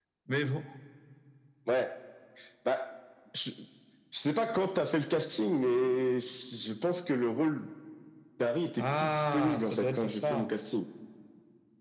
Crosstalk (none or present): present